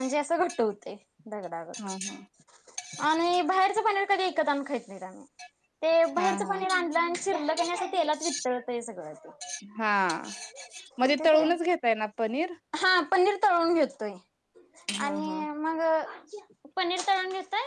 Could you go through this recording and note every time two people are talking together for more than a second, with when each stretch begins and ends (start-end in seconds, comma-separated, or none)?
none